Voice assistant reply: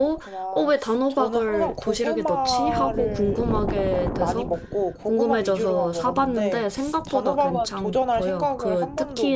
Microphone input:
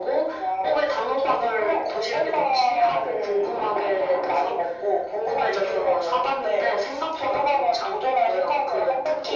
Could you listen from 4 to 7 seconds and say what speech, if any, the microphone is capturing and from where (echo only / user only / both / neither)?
echo only